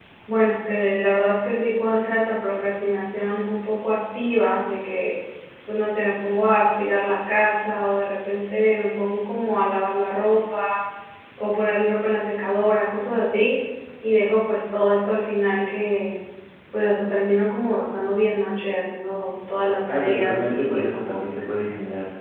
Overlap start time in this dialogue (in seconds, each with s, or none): 19.9 s